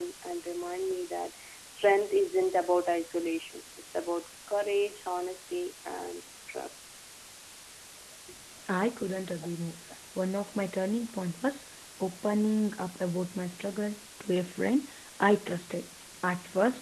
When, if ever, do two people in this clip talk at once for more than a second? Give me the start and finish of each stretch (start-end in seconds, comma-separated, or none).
none